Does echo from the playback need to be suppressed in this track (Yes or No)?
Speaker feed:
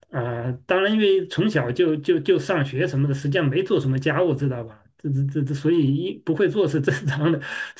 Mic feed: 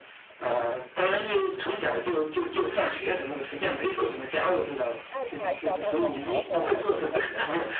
Yes